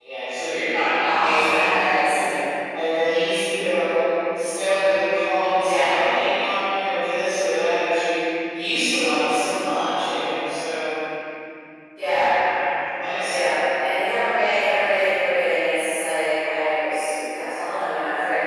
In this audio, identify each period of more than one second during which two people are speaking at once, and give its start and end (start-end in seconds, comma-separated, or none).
1.0-2.2